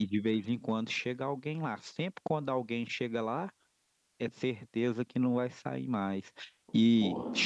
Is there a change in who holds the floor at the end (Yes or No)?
No